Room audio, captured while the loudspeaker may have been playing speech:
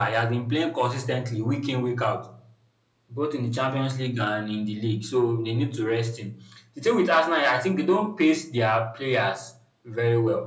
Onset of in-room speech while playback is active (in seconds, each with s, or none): none